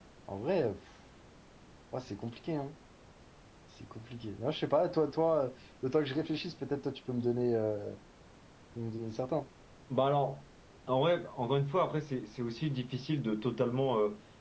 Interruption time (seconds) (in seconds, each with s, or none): none